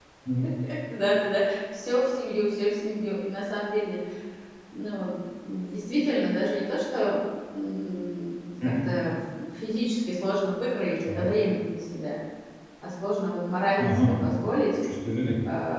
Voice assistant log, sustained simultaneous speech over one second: none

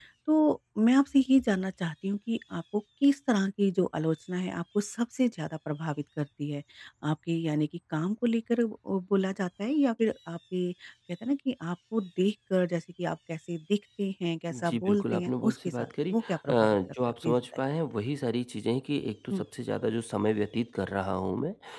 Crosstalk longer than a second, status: present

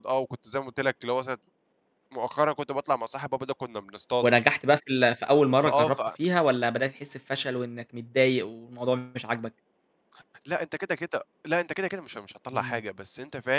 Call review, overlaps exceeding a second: none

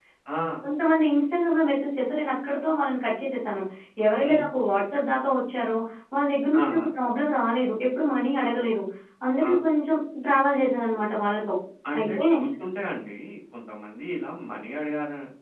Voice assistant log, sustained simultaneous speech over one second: none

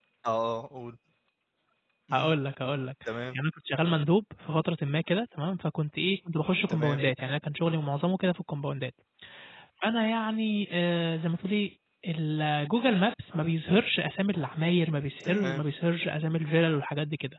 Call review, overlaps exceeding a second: none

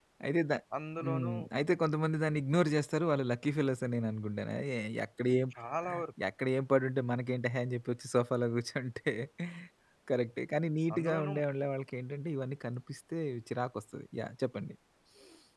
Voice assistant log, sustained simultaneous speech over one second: none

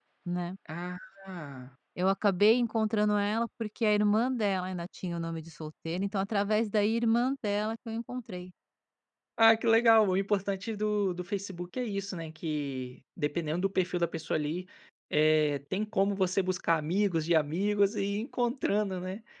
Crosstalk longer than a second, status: none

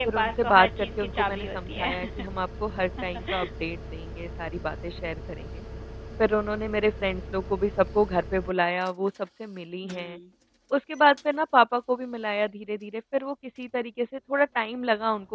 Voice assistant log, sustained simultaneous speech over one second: present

